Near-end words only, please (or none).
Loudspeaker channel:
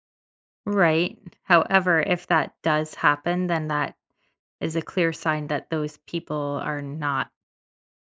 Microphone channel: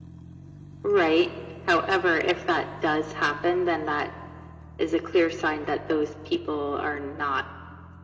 none